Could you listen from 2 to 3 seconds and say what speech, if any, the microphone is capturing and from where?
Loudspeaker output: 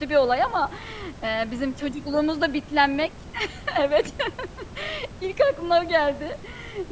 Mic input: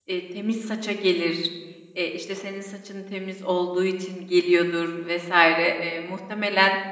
user only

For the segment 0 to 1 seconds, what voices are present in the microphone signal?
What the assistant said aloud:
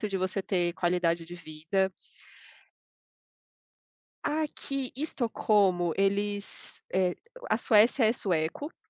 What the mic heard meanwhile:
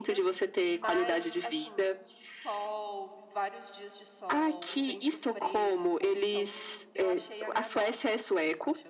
both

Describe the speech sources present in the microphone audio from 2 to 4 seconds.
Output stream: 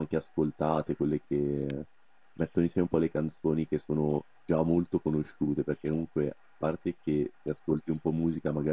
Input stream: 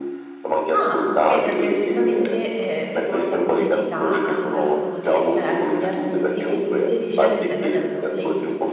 both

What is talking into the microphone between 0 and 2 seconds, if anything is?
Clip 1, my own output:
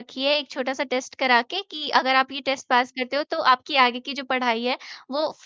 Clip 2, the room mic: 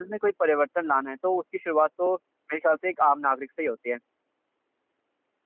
user only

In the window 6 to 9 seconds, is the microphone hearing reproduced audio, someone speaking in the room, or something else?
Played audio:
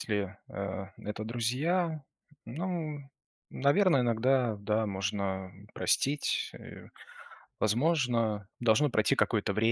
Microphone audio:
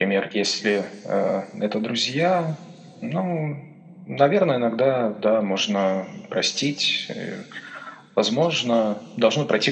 echo only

